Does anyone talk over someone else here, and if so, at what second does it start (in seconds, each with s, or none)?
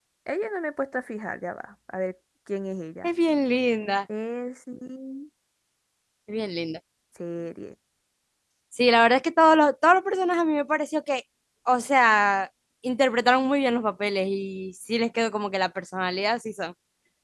none